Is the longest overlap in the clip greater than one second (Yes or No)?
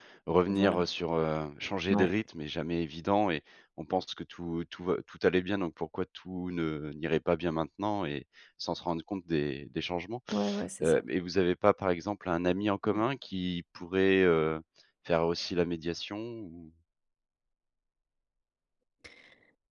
No